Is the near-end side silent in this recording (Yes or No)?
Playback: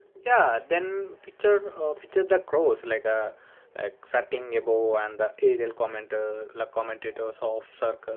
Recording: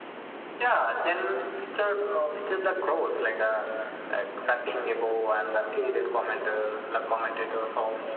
Yes